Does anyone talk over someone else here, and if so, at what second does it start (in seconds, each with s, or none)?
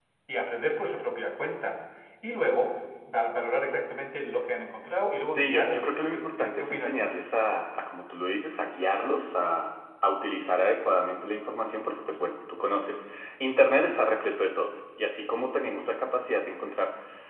5.3 s